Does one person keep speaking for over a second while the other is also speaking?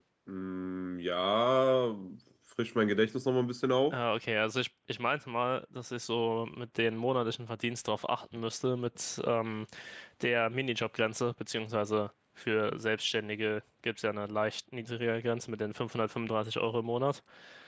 No

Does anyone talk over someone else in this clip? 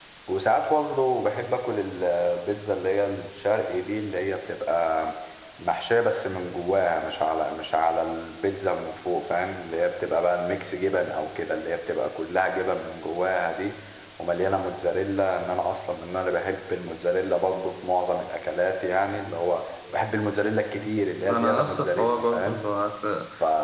Yes, from 21.3 s

